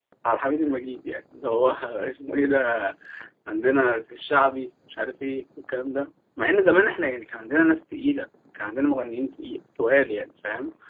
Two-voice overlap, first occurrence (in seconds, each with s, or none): none